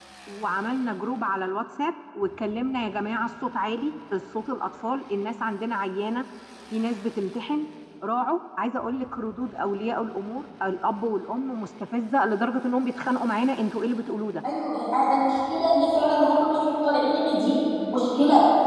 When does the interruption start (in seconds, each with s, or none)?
none